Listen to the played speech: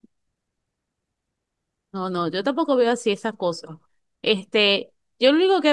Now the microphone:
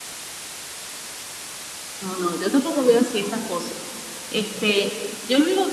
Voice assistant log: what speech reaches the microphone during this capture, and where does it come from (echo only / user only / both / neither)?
echo only